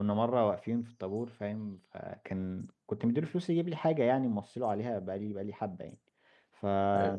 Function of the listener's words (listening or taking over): listening